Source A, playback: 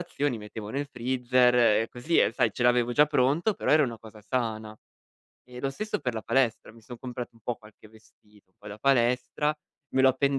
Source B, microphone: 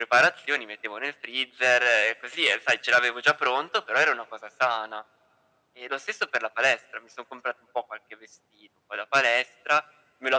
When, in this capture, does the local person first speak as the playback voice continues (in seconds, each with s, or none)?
none